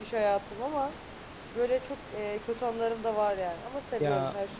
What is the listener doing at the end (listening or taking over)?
taking over